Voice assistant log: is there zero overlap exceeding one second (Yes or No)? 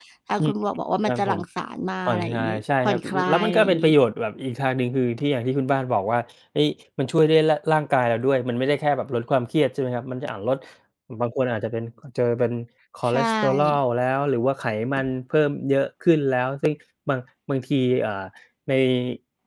No